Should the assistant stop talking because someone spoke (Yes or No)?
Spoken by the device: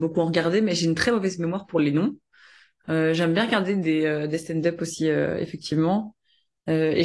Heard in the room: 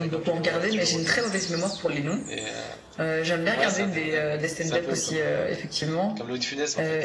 Yes